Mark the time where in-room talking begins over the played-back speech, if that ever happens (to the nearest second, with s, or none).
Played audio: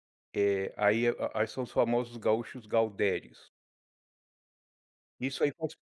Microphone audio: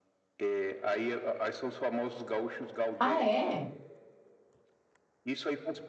3 s